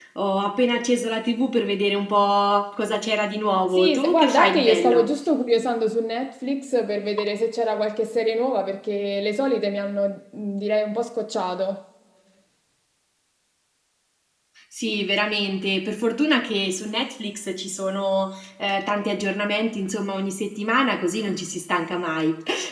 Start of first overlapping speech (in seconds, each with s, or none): 3.7 s